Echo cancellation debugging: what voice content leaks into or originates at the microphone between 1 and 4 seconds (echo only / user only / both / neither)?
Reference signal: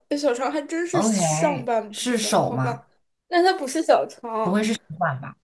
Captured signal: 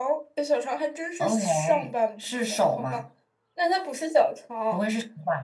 echo only